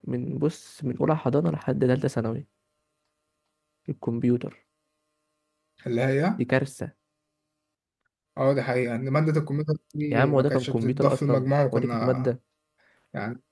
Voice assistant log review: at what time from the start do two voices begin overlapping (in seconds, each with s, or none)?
10.1 s